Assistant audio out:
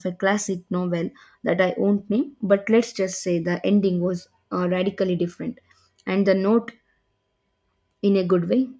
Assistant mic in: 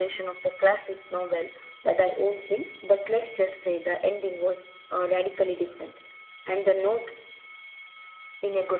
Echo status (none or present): present